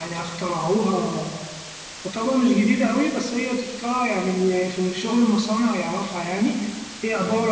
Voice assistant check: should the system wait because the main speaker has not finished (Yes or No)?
No